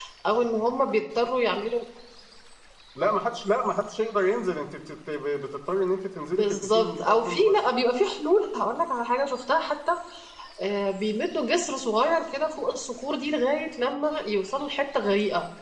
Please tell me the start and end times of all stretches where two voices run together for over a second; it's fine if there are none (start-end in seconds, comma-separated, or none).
6.3-7.6